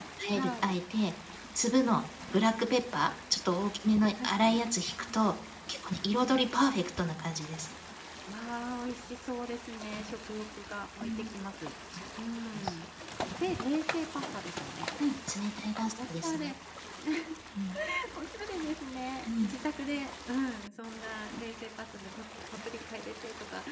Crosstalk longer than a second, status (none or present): none